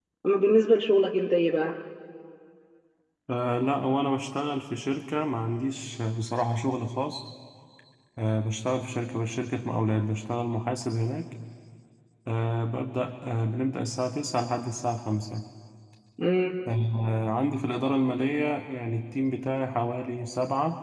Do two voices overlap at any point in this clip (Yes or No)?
No